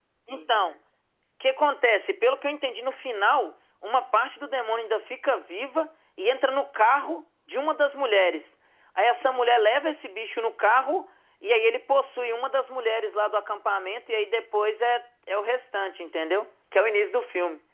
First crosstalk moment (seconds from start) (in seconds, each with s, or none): none